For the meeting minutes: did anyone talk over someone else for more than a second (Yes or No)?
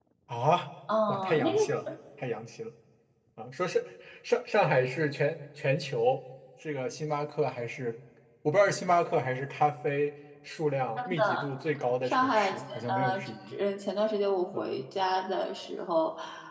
Yes